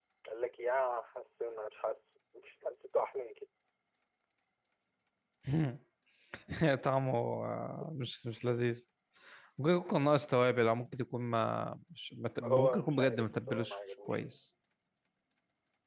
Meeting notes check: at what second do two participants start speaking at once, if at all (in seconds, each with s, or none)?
12.4 s